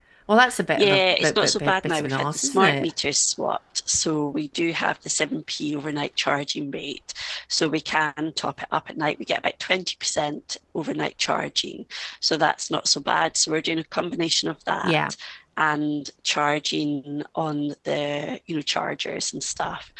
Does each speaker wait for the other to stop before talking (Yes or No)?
No